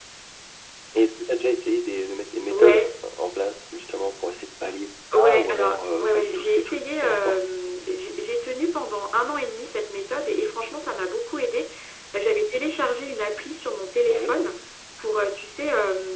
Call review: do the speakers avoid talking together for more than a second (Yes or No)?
No